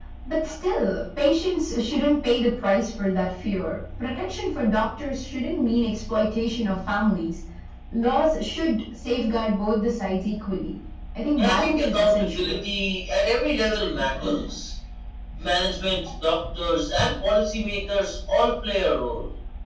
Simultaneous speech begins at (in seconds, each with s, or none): 11.4 s